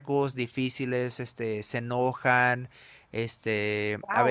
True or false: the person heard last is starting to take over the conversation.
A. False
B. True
B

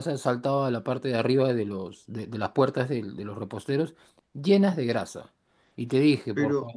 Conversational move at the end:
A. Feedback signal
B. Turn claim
A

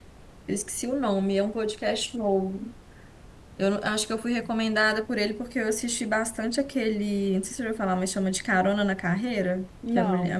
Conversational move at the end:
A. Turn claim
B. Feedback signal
B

